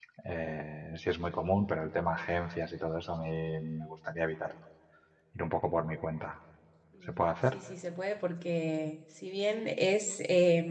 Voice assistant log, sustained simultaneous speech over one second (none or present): none